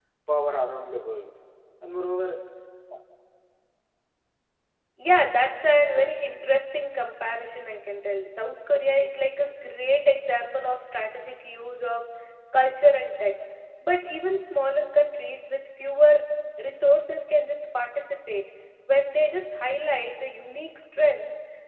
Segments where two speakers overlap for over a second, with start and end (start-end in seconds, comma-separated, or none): none